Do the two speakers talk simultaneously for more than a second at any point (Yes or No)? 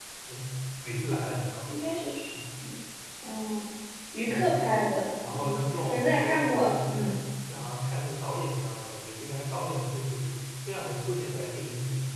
Yes